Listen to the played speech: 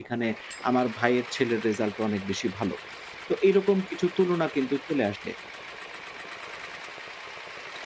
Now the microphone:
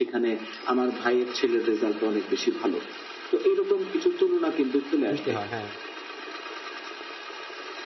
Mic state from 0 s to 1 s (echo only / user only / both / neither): echo only